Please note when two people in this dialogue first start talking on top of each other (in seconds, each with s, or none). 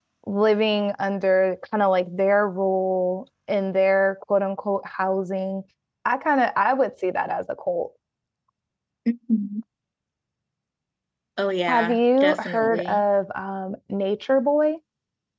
11.7 s